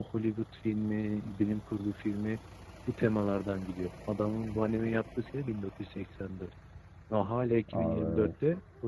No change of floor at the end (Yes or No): Yes